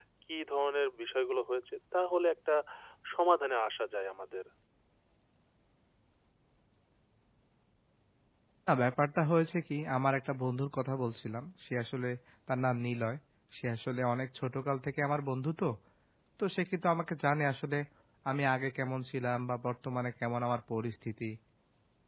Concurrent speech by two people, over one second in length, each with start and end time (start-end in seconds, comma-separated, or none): none